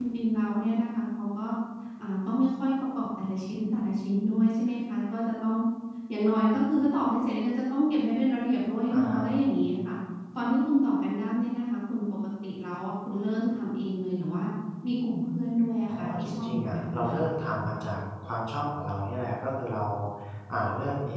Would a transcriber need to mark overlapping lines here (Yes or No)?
Yes